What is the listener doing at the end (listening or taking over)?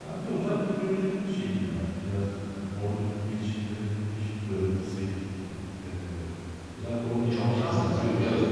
taking over